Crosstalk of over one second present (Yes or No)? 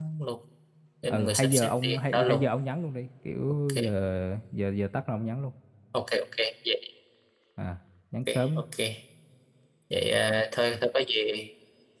Yes